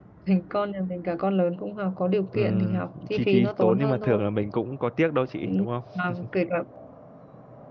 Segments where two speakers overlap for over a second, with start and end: 2.3-4.2

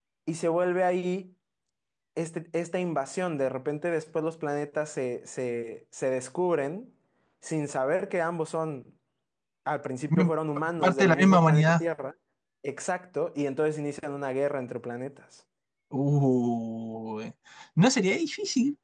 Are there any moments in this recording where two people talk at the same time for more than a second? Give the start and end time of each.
10.1-11.8

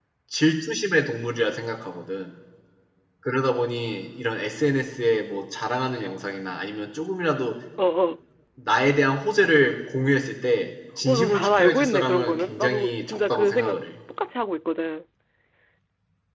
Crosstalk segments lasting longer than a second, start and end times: 11.0-13.8

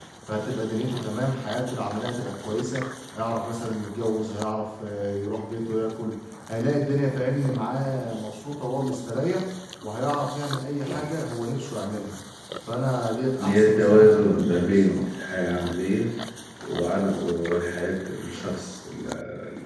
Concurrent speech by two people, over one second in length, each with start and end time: 13.4-15.0

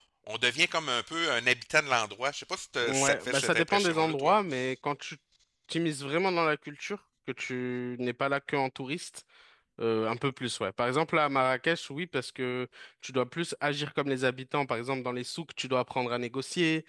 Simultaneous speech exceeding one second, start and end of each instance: 2.8-4.3

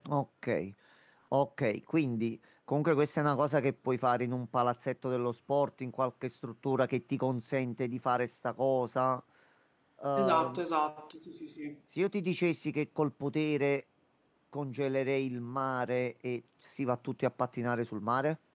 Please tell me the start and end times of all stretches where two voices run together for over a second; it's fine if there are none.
none

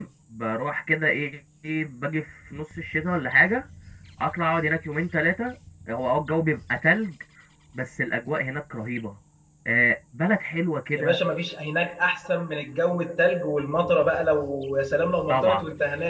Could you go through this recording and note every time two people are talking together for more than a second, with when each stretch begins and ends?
none

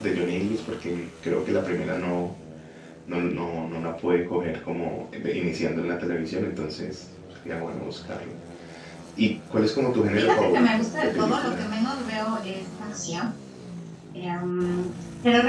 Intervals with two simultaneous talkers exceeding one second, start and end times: 10.2-11.8

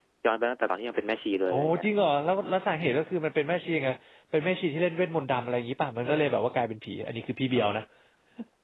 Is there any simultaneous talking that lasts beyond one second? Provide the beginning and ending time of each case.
none

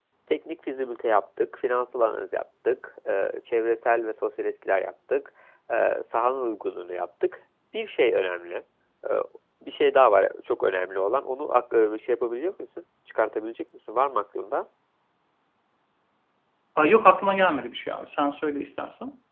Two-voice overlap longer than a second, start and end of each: none

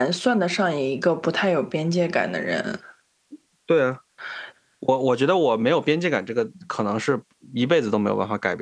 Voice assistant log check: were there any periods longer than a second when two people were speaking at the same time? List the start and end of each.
none

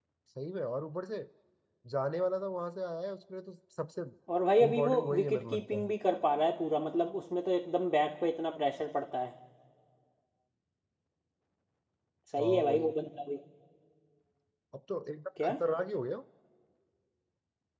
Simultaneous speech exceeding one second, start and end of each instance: 4.6-5.9

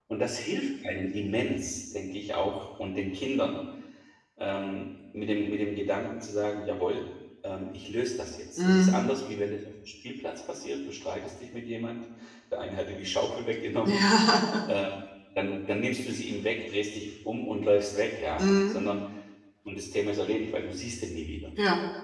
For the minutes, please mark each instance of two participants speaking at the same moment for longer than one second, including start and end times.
none

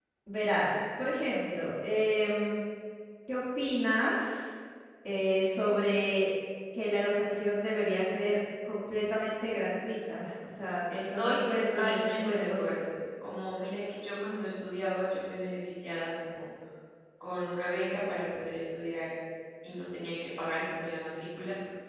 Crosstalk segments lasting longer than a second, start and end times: 10.9-12.6

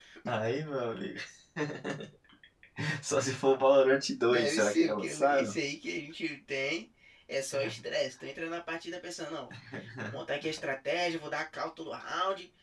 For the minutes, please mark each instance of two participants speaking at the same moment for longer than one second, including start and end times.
4.3-5.5

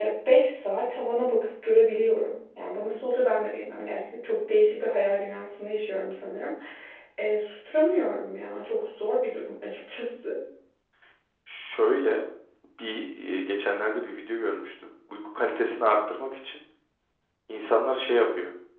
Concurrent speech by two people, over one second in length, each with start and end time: none

